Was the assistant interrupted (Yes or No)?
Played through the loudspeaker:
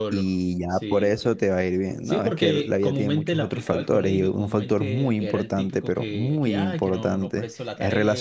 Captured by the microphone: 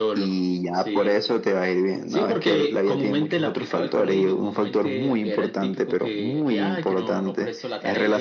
No